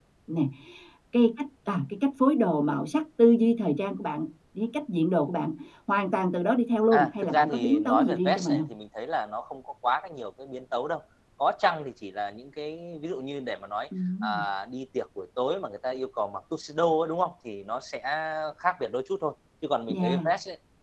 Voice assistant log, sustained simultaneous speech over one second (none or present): present